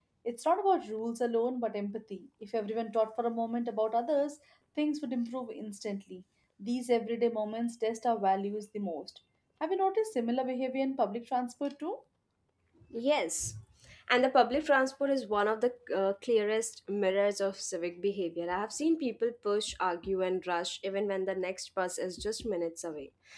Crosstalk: none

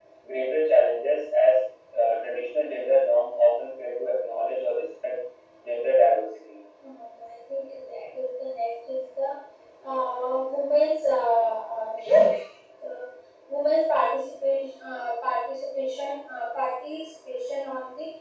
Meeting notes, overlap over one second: none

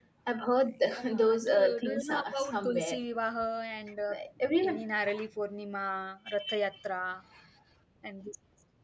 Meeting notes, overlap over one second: present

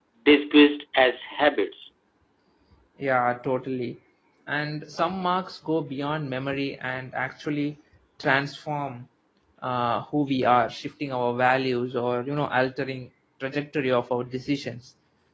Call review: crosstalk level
none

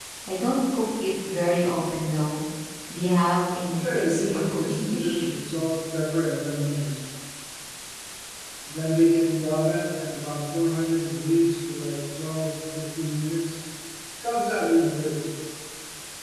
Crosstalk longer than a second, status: present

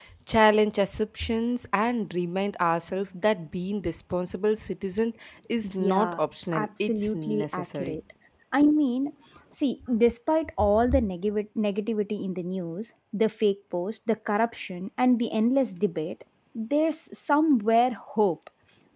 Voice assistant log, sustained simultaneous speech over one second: present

